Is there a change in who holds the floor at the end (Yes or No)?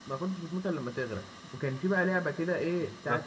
No